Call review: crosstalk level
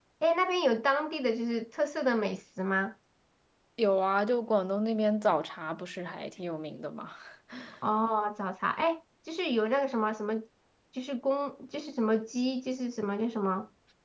none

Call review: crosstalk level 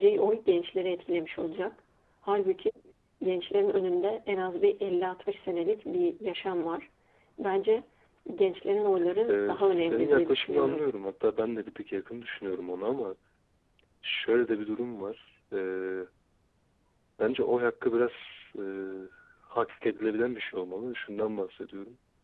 present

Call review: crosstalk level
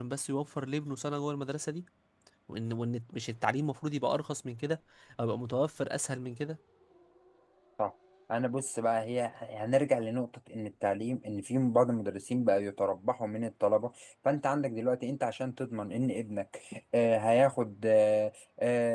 none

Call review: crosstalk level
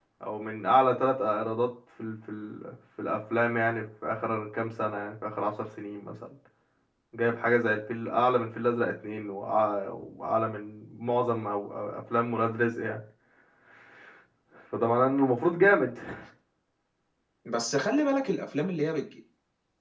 none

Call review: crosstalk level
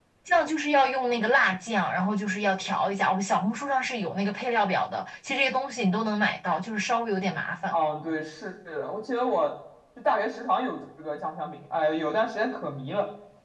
none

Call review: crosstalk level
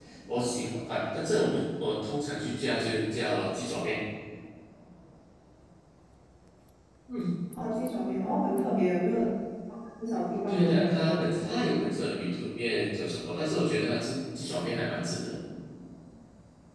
present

